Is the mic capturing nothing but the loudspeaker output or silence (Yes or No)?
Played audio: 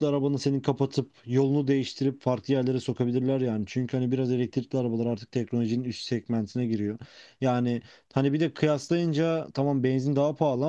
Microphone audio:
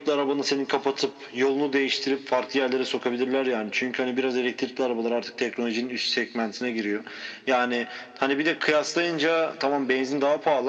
Yes